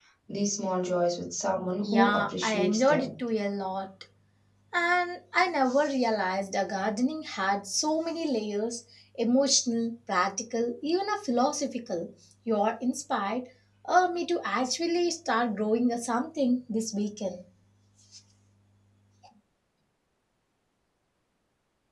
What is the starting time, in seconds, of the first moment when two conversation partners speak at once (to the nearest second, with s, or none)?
2 s